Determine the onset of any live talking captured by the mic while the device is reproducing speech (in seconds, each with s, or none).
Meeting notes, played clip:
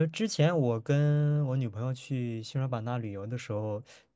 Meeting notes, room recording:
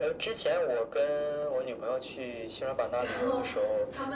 3.0 s